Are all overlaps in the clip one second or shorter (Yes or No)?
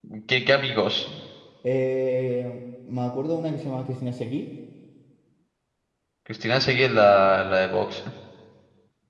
Yes